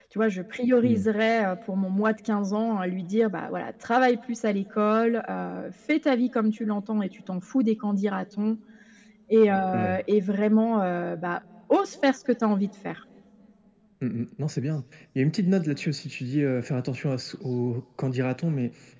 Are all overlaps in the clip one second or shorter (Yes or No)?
Yes